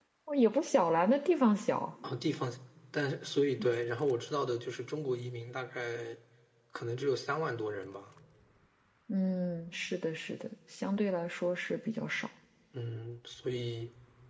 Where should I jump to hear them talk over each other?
none

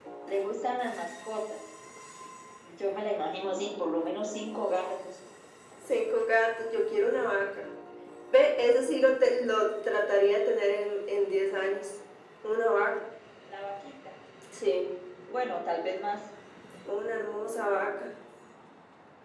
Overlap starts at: none

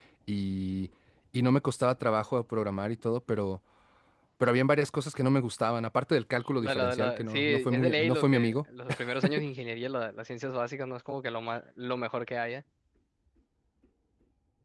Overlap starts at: 6.6 s

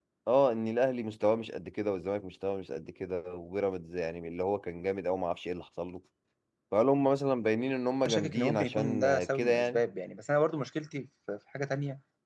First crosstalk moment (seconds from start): 8.1 s

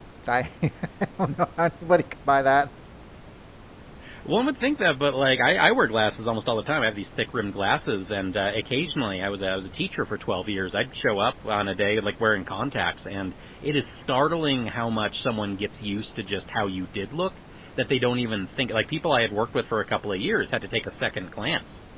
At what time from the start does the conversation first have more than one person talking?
none

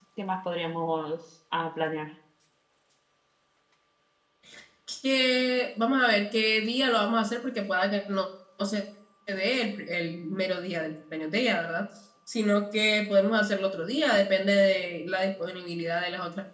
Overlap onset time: none

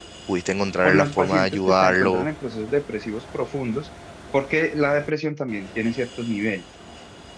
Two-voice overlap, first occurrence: 0.8 s

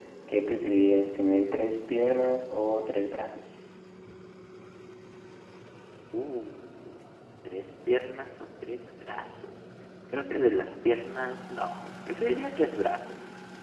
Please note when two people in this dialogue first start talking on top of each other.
none

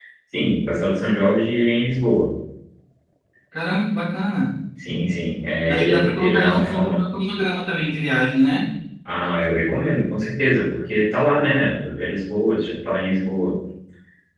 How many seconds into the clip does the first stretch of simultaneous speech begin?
5.7 s

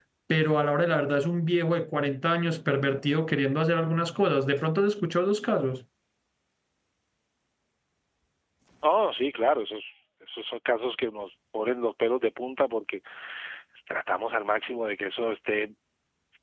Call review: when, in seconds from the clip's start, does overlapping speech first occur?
none

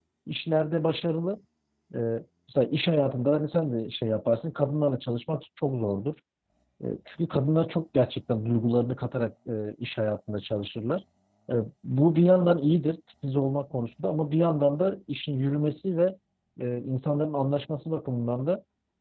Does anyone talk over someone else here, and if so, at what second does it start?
none

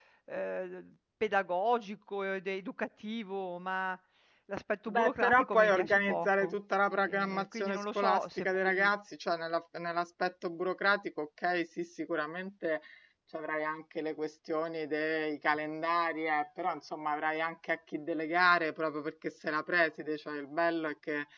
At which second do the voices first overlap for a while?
4.9 s

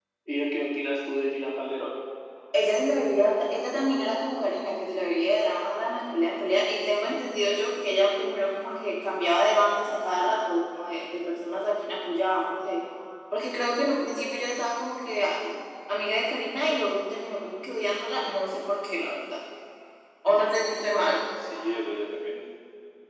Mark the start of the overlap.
none

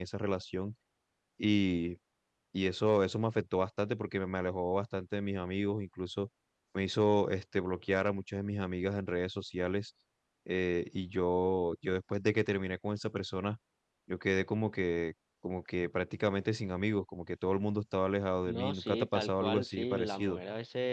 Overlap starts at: 18.5 s

